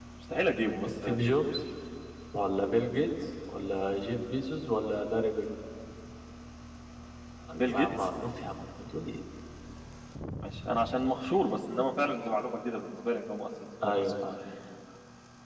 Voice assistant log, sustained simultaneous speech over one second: none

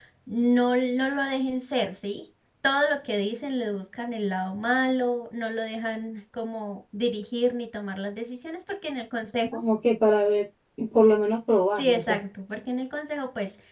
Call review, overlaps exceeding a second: none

